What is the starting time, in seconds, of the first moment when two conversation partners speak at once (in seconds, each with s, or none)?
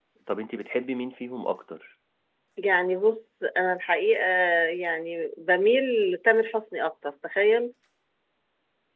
none